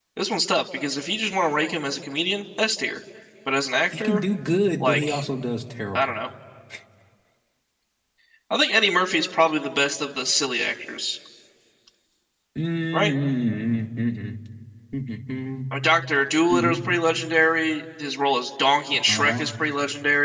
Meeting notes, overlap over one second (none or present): none